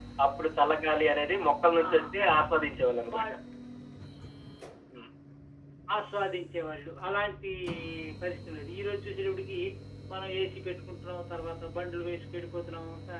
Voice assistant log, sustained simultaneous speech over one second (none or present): none